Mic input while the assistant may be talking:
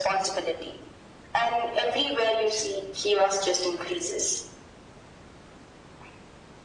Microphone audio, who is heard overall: echo only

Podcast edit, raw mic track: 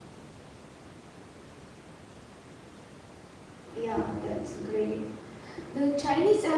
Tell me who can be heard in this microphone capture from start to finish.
user only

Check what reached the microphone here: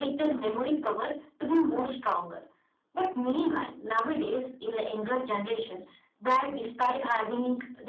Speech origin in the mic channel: echo only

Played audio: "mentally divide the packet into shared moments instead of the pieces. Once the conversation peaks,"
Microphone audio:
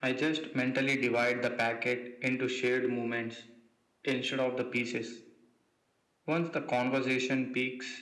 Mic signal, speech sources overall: echo only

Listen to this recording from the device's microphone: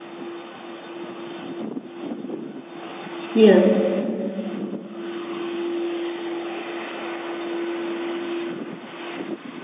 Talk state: user only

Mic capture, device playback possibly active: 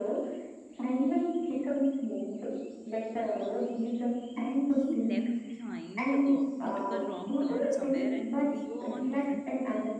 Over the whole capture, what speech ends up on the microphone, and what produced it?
both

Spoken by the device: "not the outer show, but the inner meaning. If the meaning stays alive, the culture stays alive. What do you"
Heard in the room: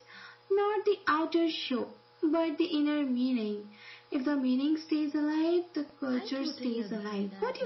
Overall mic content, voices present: both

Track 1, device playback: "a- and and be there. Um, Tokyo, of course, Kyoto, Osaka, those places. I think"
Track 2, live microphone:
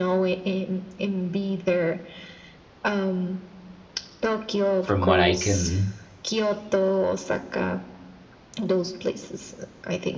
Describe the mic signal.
both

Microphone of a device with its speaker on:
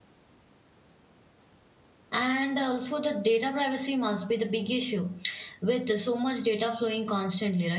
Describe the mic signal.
user only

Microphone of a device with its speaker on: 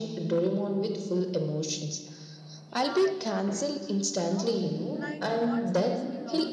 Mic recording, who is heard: both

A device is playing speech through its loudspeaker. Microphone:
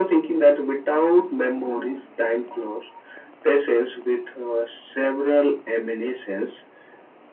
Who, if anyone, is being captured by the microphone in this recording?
echo only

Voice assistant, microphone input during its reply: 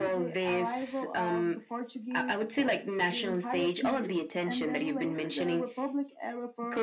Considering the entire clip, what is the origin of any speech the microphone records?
echo only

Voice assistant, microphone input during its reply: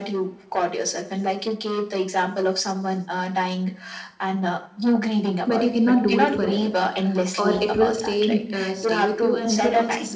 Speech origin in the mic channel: both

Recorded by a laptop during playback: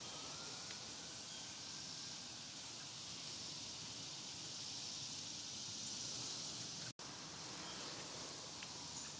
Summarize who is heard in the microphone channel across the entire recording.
neither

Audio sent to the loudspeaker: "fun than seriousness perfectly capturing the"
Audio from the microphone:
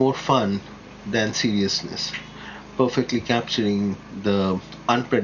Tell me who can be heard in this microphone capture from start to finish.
echo only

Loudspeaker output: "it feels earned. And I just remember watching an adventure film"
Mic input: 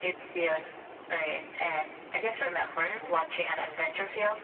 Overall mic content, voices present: echo only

